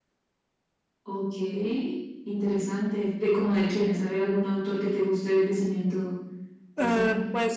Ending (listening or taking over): taking over